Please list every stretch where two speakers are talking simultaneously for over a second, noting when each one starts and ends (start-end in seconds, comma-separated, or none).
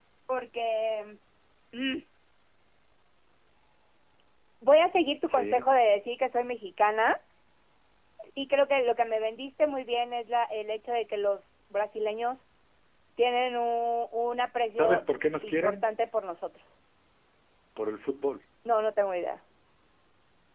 none